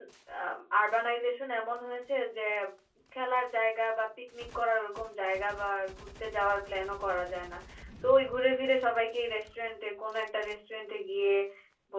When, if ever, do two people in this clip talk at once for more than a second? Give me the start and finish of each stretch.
none

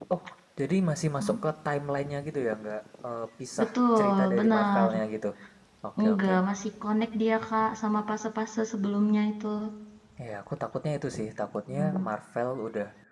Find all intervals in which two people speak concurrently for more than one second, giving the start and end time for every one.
3.6-4.9

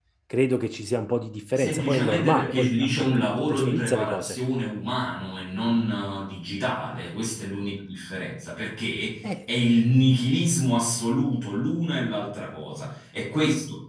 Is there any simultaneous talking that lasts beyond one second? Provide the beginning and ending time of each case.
1.5-4.4

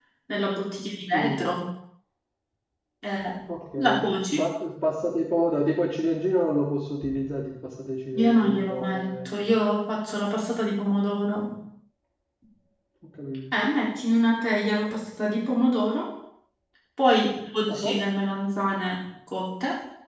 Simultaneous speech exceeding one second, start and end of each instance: 8.2-9.5

